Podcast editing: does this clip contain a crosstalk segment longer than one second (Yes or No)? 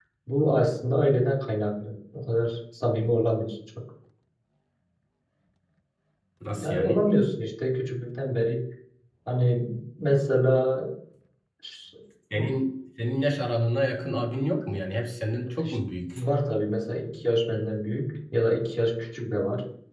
No